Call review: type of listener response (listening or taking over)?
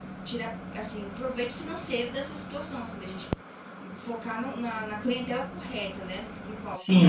taking over